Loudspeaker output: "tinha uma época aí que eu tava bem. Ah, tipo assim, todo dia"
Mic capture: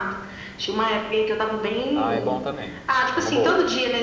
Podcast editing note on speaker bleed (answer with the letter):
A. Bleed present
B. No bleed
A